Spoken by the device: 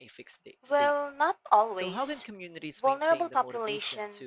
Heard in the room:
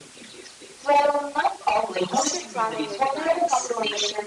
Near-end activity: present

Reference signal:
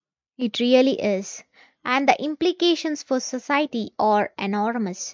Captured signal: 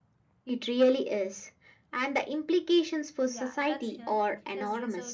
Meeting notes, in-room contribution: present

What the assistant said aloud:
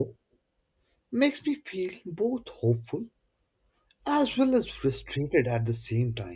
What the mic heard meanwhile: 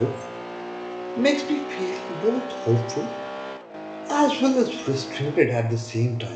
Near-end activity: none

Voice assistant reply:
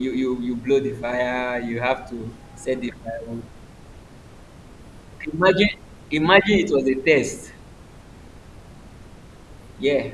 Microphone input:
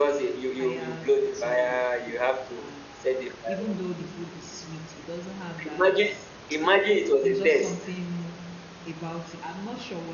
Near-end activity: present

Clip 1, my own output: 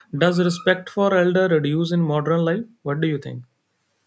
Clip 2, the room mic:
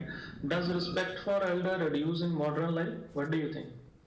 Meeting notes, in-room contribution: none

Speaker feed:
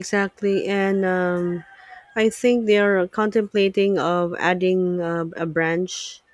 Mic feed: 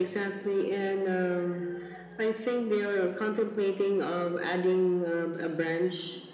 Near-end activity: none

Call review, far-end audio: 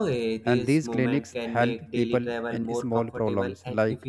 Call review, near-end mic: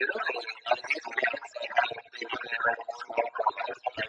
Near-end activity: none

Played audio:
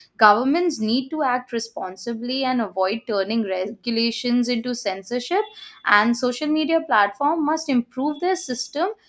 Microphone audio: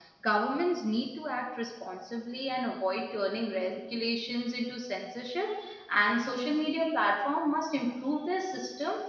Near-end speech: none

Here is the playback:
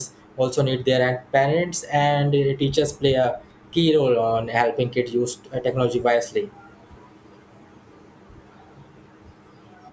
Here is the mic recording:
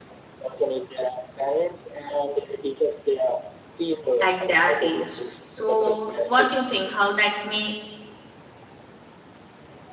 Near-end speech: present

